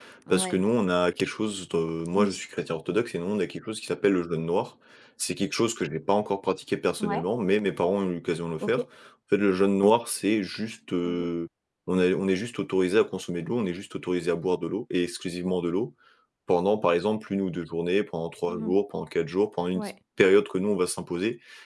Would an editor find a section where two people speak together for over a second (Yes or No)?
No